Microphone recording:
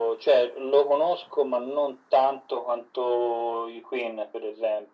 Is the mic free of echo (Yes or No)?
No